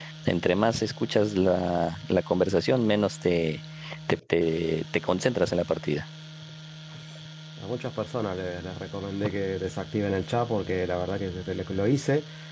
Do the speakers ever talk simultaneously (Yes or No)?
No